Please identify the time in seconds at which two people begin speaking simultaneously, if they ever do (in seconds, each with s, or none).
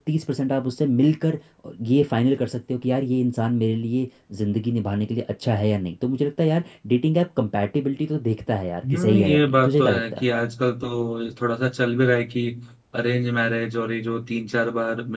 8.8 s